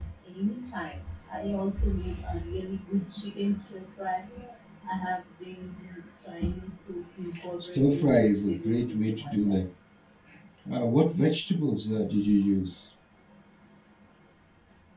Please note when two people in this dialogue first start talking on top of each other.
7.7 s

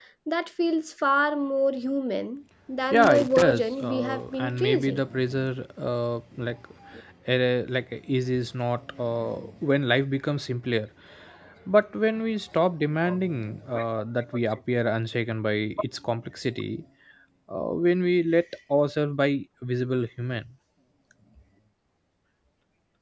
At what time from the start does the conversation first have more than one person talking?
2.9 s

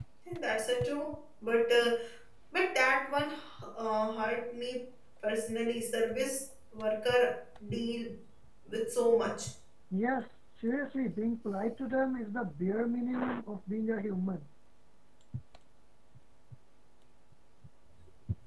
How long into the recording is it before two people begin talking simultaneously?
none

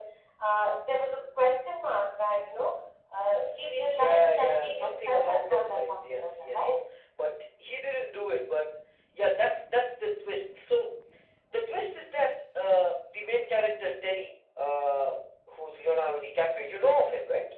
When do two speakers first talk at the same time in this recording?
3.9 s

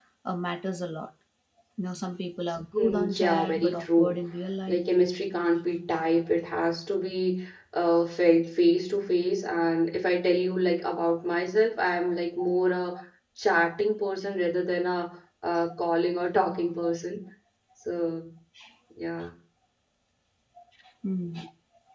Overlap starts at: 2.7 s

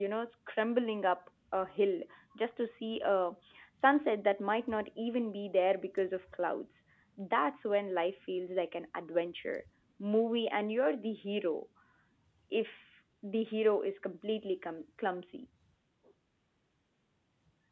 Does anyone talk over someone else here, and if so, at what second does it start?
none

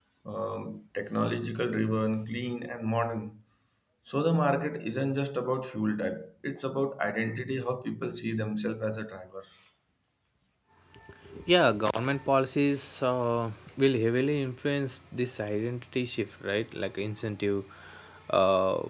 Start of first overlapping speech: none

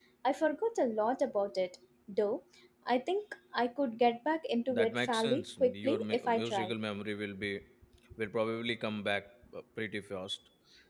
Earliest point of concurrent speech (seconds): 4.7 s

